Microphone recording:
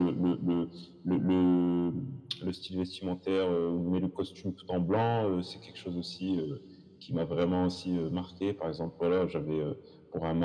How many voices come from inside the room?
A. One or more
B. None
B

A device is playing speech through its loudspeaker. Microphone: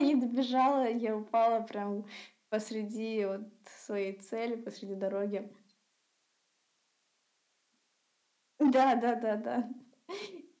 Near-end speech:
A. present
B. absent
B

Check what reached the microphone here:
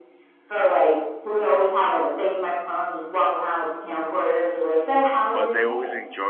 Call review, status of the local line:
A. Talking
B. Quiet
A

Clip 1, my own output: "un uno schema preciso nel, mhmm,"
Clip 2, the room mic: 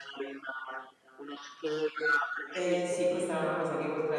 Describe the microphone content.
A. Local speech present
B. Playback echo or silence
A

